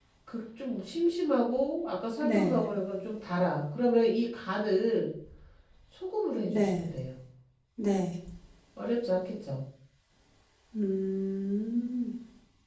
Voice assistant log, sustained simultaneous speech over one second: none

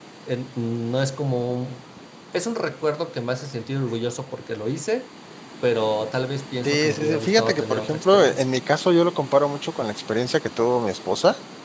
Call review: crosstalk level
present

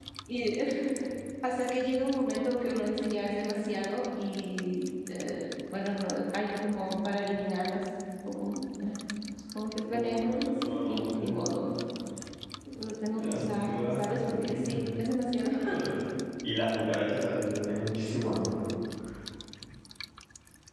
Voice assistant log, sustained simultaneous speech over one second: present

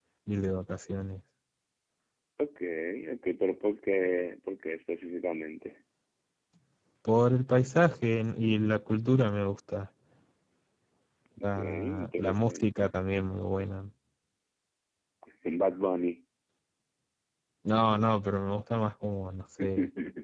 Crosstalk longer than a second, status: present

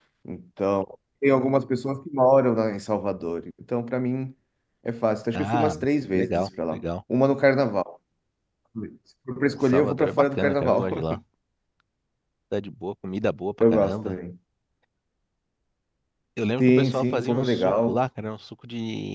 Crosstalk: present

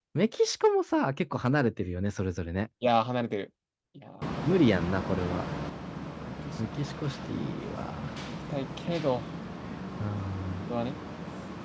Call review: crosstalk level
none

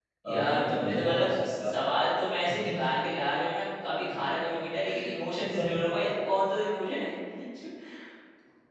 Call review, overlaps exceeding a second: present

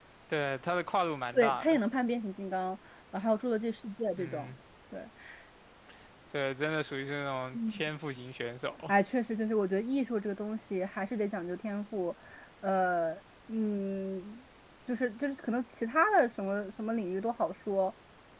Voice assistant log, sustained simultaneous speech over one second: none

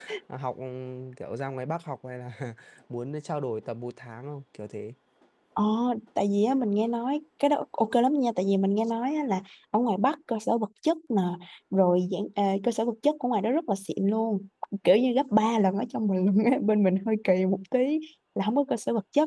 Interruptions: none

